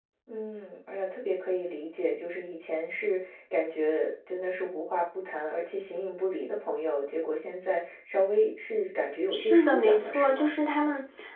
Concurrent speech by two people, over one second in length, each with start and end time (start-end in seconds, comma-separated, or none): 9.3-10.5